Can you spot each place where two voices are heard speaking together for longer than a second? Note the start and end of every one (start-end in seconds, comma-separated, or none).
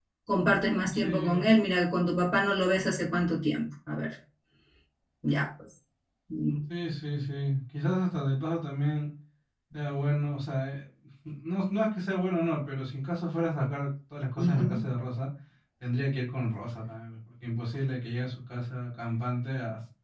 none